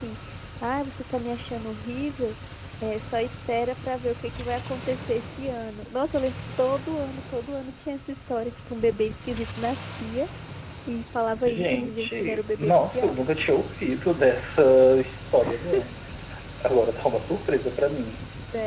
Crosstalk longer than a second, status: present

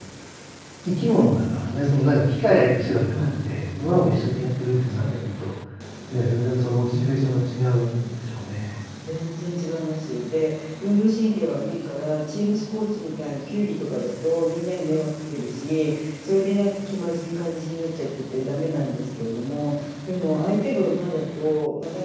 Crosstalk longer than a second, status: none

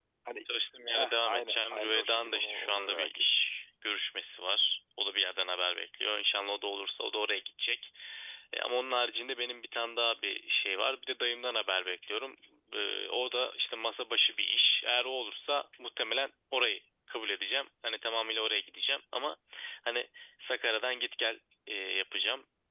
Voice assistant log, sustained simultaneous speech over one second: present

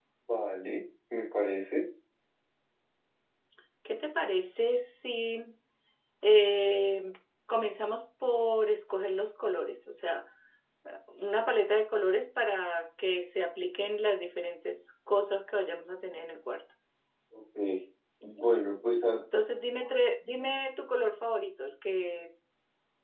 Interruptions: none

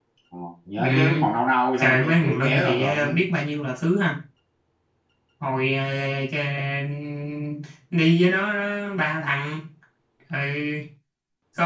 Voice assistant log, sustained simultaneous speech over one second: present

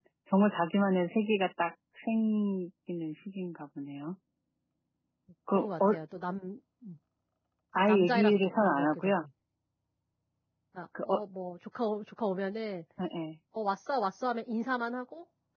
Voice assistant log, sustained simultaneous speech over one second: present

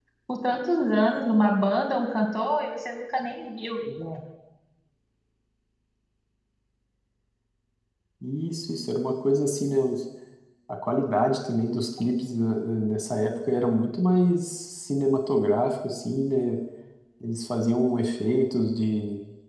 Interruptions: none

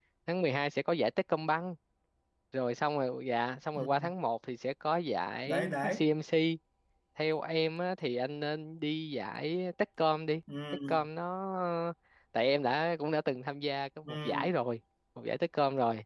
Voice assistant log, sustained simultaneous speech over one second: none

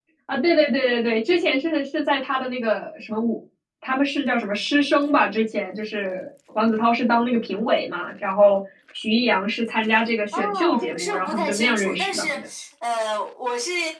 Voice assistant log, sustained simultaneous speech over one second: present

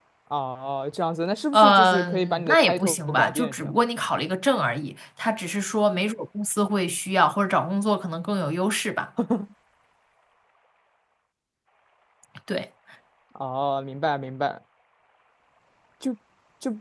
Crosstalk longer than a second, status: present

